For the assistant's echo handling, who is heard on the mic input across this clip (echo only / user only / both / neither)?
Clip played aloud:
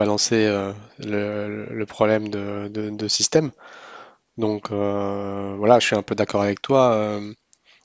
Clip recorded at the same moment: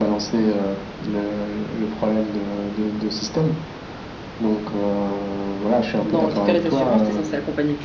both